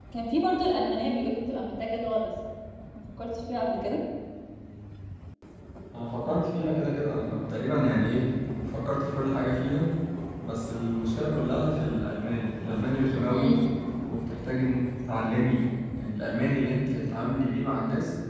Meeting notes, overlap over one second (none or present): none